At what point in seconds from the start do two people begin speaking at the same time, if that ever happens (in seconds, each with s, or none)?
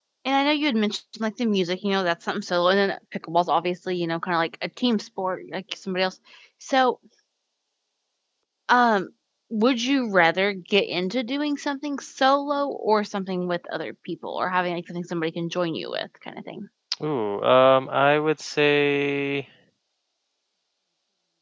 none